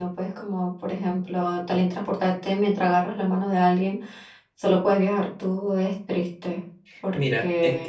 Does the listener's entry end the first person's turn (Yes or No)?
Yes